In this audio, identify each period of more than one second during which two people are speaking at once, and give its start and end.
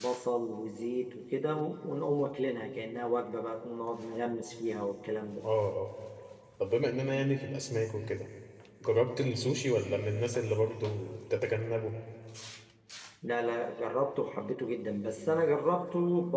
none

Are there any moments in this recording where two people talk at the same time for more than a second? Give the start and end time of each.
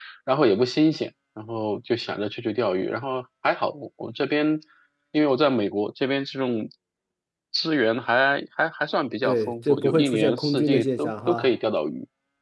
9.2-11.5

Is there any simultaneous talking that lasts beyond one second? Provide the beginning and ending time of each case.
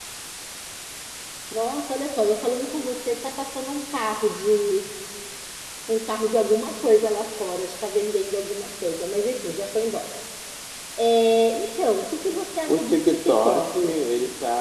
12.7-14.0

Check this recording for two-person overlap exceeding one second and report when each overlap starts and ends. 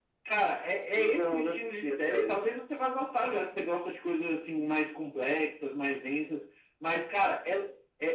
1.0-2.4

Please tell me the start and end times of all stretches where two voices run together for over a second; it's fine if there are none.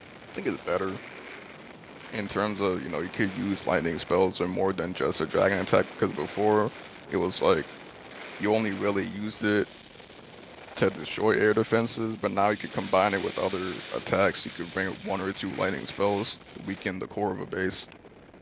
none

